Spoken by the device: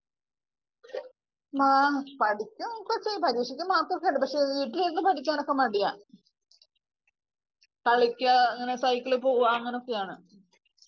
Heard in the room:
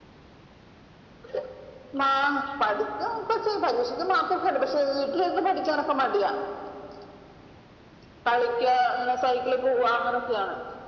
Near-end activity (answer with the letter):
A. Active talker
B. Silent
B